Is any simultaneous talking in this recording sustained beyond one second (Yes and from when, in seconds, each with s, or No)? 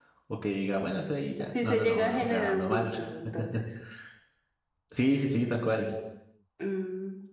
Yes, from 1.5 s